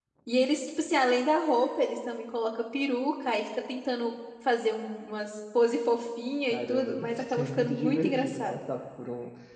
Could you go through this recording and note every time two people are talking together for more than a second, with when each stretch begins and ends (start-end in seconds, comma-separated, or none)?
6.5-8.6